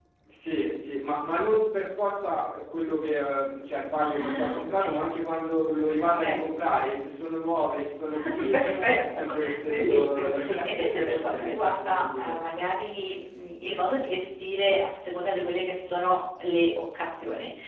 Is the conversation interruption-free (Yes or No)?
No